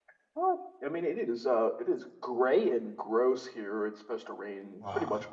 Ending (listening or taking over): listening